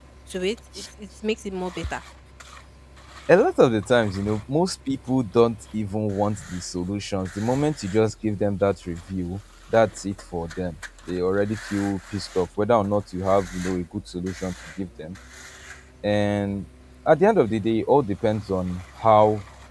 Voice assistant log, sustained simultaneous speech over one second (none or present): none